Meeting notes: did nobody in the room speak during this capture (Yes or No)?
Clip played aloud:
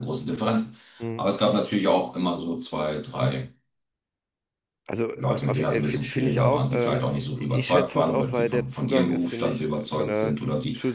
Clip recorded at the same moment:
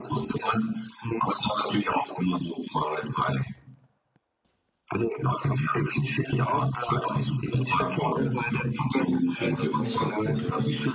No